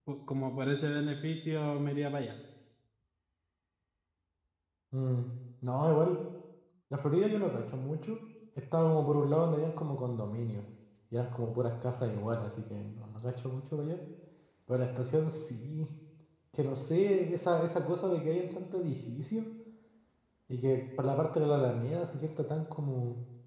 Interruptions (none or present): none